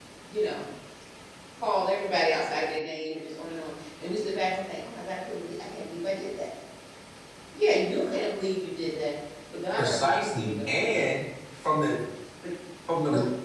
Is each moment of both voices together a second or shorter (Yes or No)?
No